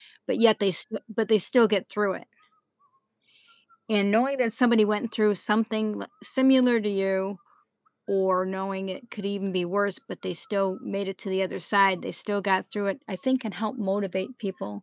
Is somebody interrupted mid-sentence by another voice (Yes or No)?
No